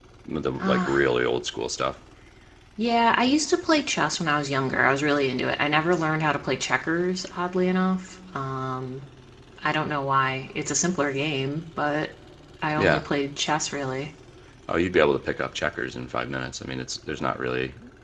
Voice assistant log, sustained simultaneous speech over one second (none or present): none